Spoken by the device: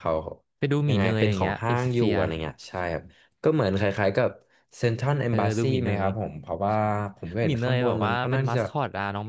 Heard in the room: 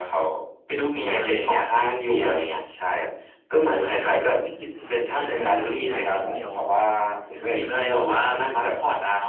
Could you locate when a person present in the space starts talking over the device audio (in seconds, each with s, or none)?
3.7 s